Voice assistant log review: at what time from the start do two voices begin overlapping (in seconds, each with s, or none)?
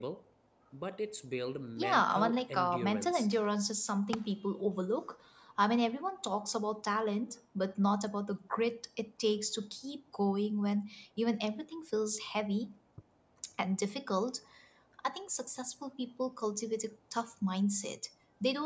1.8 s